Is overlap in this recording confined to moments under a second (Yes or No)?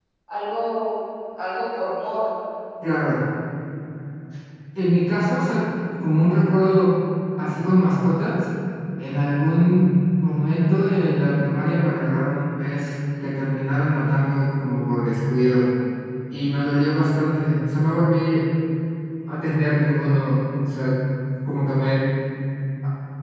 Yes